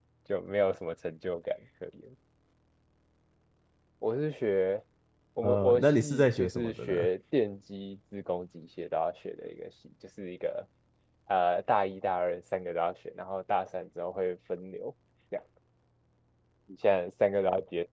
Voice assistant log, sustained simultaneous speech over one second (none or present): present